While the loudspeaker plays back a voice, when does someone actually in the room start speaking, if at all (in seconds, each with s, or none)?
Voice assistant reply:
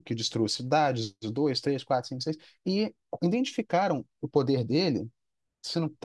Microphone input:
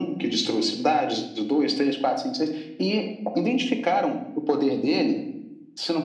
none